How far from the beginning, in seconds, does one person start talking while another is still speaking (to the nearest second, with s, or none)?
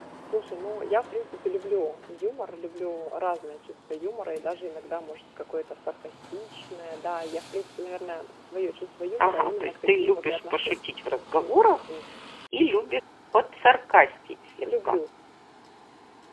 9 s